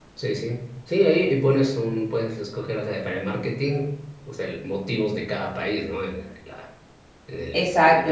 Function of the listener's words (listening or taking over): taking over